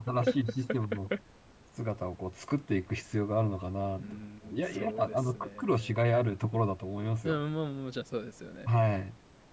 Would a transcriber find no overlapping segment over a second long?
No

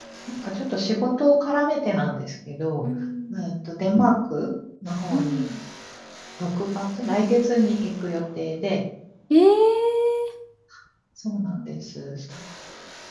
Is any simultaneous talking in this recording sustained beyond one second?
No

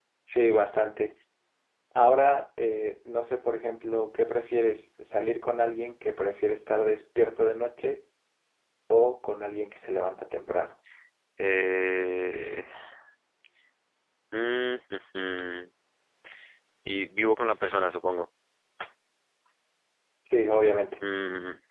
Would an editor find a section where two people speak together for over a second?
No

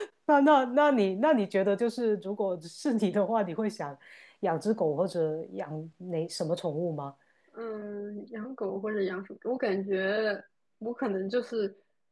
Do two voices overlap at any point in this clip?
No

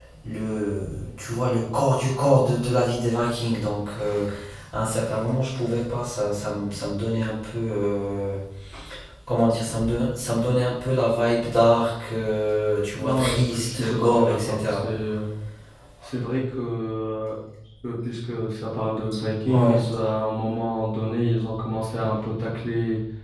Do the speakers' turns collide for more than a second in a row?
Yes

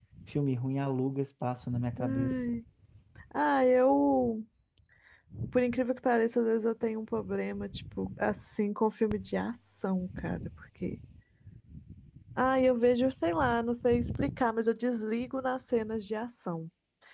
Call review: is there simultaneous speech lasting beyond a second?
No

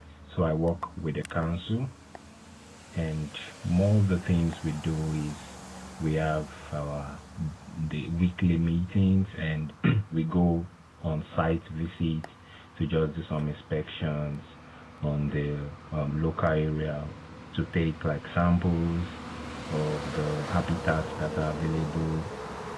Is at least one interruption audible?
No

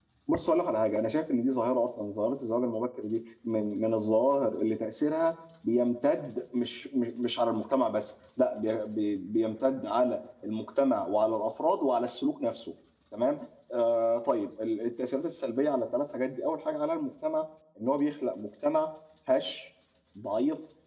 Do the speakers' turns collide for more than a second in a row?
No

